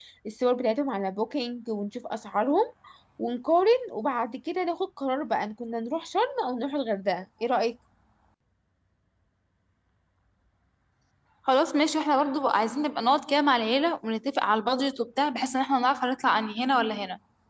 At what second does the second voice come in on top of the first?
none

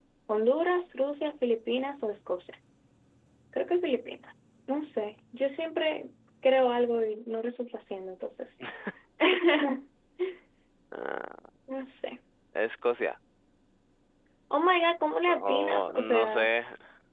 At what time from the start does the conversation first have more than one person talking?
15.3 s

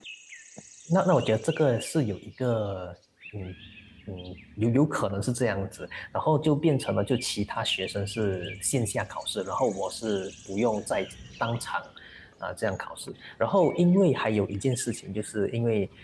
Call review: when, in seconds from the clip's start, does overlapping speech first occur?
none

